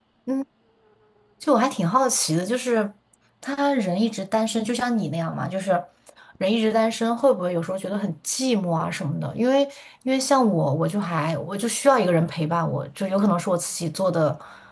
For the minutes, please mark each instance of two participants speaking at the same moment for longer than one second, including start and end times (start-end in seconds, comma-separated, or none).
none